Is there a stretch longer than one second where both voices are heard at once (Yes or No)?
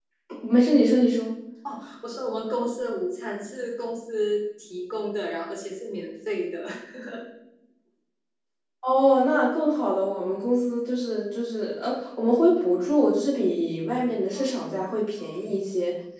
No